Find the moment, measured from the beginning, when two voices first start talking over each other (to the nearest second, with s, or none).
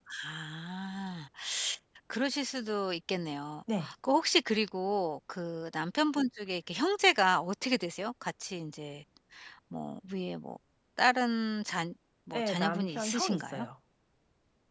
12 s